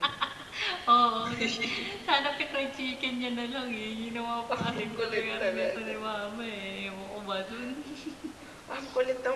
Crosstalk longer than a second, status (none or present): present